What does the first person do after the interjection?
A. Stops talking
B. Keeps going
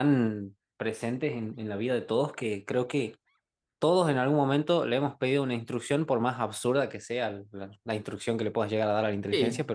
A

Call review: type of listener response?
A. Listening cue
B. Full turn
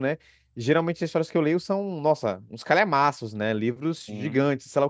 A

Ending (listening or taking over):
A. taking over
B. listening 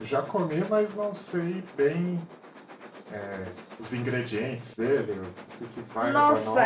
A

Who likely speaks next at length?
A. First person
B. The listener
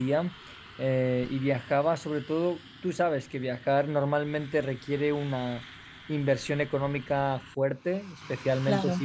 A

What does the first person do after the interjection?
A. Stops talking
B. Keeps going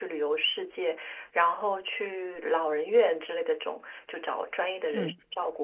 B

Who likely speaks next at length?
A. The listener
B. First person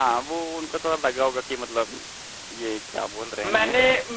A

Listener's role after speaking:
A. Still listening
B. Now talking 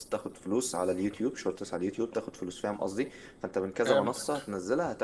A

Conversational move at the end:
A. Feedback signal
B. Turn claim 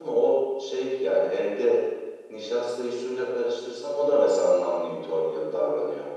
B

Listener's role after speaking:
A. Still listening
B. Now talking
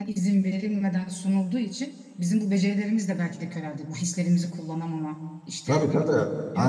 B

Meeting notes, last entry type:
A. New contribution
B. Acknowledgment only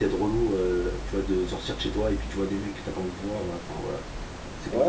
A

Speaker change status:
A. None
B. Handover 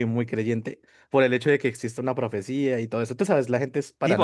B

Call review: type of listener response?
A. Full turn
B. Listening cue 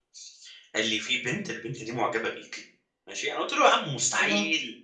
B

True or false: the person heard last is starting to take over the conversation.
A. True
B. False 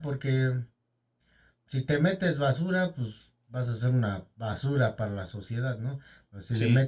B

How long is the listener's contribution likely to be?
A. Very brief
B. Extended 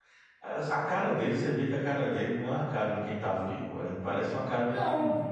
B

